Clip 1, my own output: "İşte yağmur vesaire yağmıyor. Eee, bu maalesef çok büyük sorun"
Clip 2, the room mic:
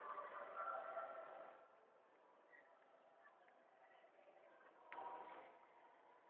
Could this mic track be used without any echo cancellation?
Yes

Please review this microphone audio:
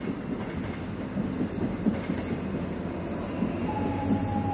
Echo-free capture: Yes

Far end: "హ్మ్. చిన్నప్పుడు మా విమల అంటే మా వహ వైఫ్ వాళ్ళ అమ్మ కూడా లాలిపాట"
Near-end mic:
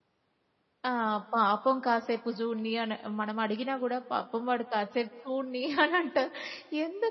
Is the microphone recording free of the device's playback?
Yes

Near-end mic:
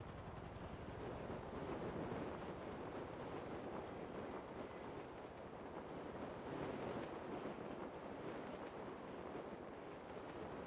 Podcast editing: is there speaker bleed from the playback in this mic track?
No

